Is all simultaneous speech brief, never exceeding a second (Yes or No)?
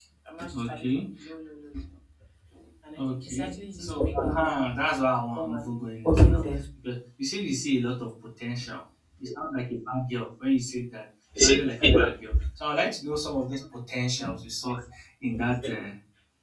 No